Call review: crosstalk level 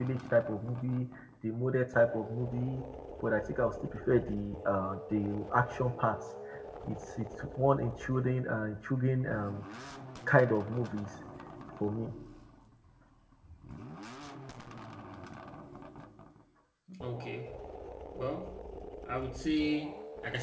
none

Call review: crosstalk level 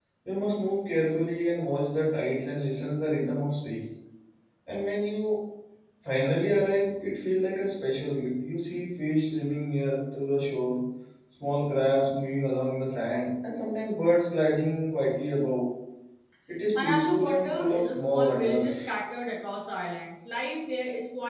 present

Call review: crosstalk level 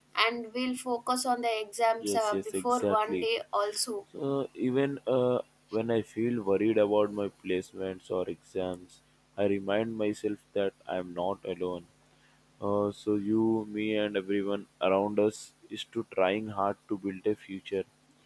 present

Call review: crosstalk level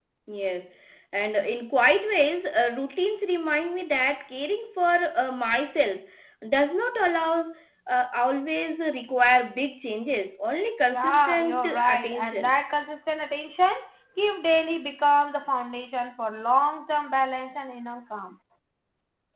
present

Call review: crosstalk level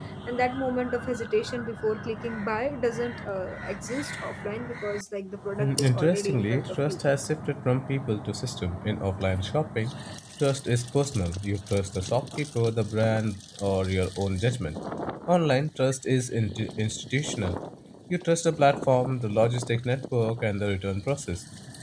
present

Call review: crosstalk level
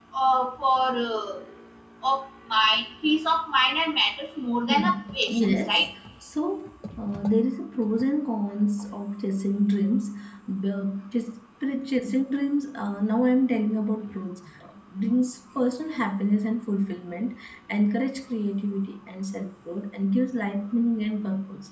present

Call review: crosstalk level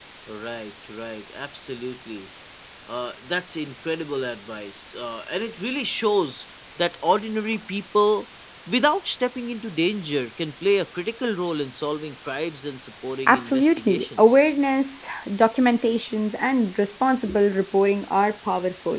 present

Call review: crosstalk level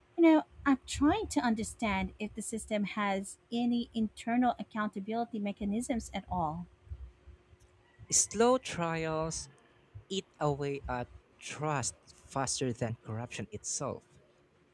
none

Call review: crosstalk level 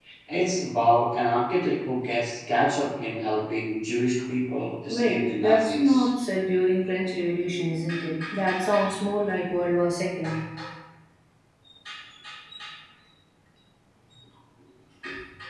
present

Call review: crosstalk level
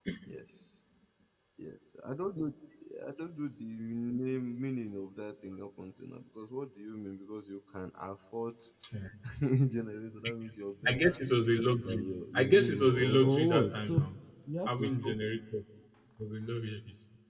present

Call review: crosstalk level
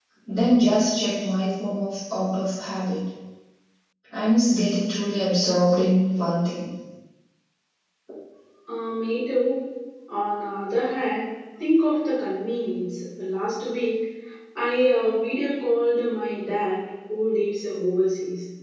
none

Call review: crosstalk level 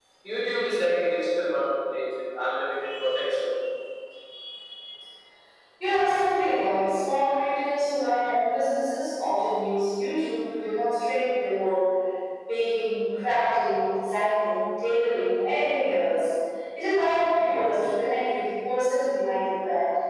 none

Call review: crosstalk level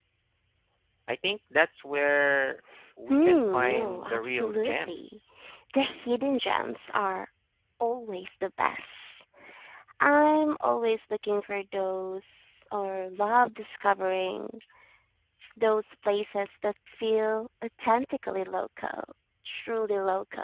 present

